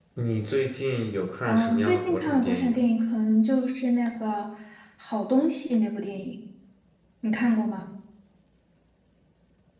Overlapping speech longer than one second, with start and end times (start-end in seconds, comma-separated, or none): 1.5-2.9